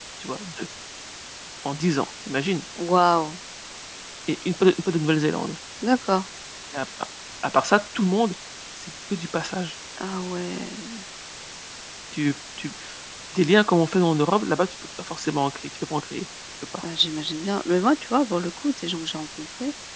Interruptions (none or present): none